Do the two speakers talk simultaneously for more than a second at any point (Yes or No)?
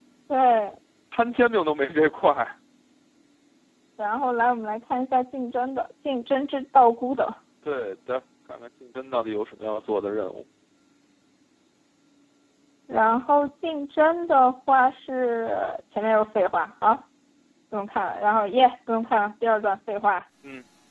No